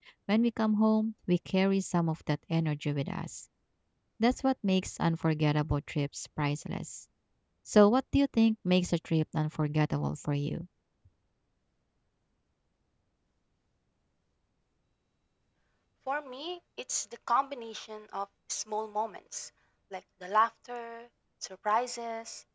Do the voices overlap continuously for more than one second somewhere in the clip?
No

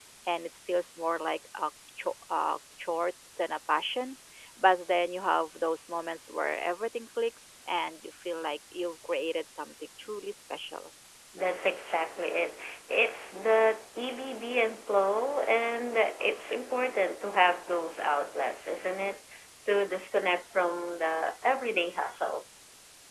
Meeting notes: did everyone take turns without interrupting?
Yes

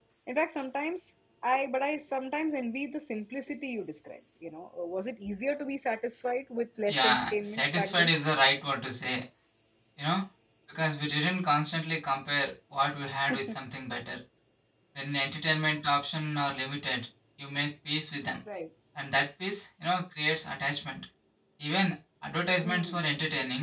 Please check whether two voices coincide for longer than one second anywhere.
Yes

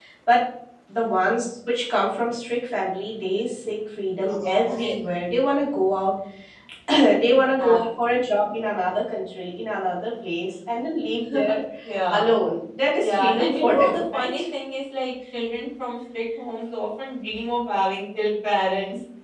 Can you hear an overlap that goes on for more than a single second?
Yes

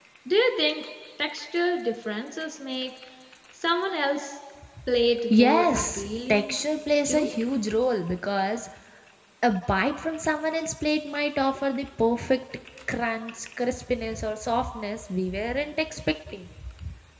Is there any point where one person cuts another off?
Yes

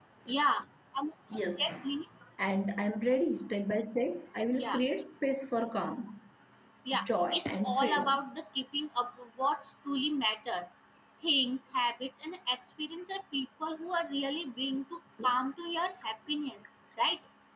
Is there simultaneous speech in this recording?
Yes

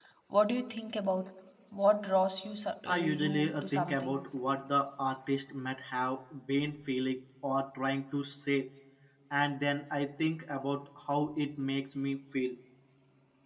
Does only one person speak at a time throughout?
No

